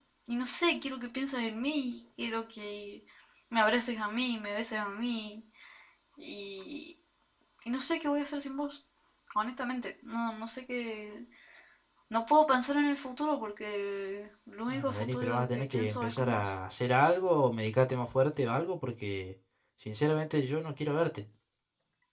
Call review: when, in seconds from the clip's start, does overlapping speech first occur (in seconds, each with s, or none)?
14.7 s